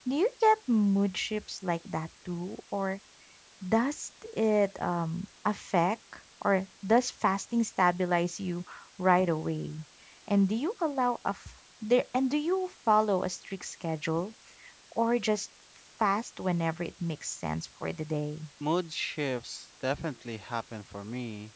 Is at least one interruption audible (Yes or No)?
No